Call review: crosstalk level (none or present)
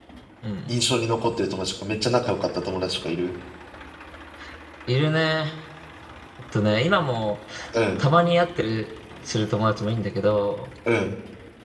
none